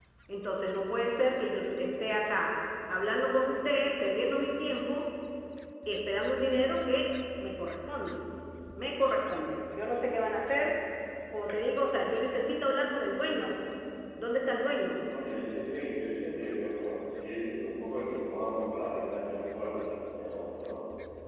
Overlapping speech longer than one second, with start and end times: none

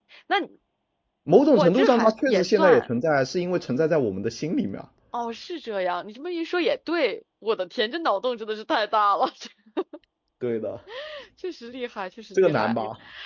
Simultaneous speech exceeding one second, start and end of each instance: 1.5-2.8

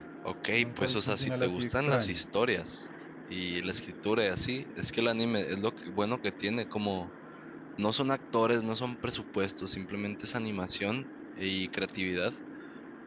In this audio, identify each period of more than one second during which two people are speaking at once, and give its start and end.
0.5-2.2

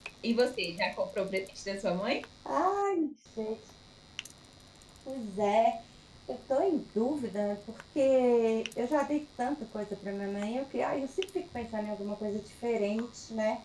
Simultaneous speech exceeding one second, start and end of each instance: none

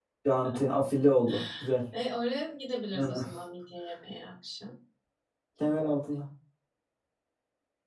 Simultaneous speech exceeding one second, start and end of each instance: none

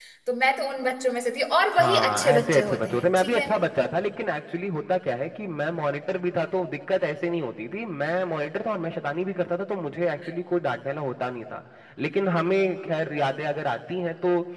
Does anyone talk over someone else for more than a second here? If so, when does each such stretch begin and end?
1.7-3.5

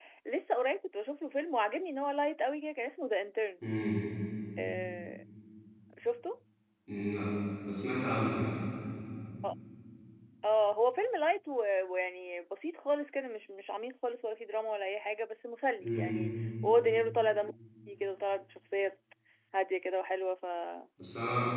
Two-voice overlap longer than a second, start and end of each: none

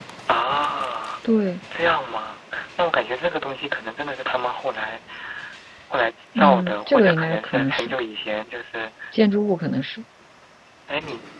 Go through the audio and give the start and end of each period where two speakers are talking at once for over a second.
6.3-7.9

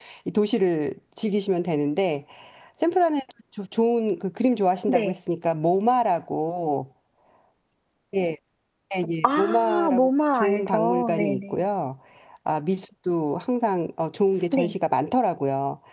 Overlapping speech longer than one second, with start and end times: 9.2-11.4

